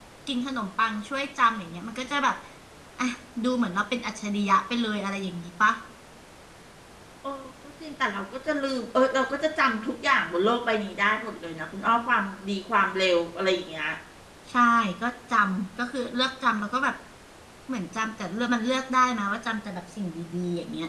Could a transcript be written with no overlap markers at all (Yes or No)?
Yes